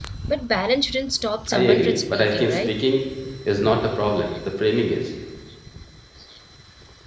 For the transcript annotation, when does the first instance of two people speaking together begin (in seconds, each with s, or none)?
1.5 s